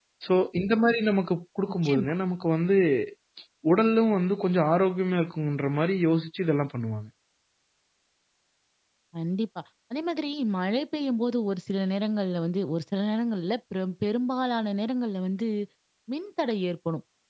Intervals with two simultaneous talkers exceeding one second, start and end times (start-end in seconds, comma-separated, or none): none